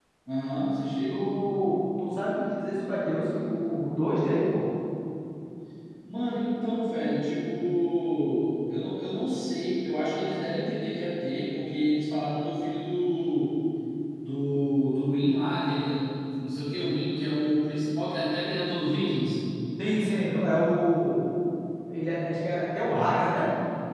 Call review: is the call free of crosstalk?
Yes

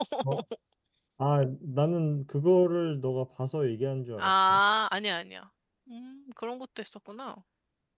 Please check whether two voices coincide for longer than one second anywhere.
No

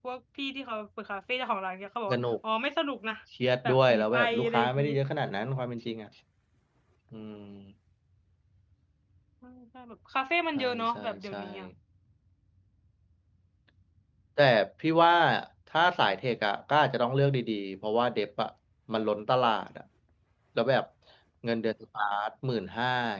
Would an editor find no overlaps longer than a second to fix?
No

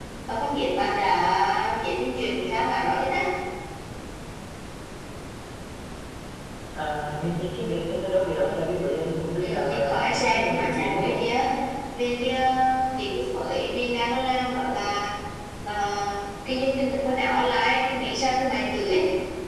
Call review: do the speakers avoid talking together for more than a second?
No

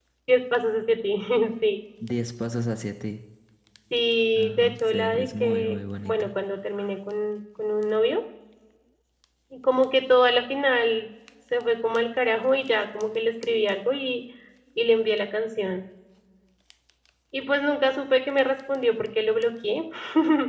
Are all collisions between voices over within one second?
No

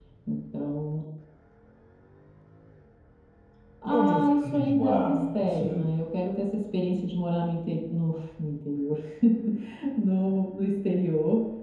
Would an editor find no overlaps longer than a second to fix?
No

